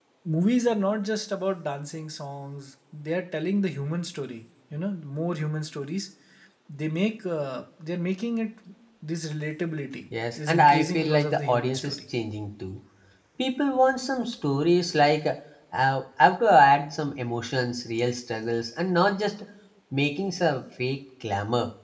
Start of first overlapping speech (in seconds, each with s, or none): 10.4 s